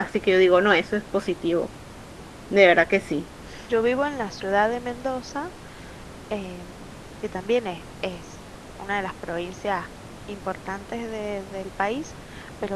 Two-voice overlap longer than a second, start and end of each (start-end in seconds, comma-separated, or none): none